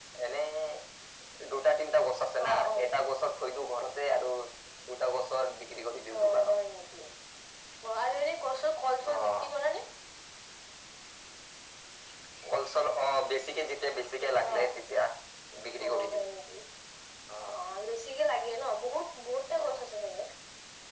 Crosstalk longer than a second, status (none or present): none